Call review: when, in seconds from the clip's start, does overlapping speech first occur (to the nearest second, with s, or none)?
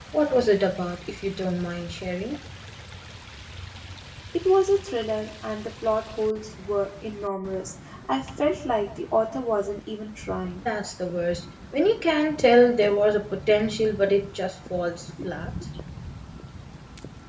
none